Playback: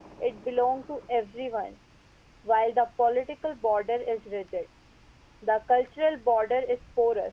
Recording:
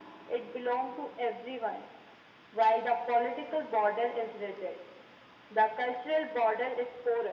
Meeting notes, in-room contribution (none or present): none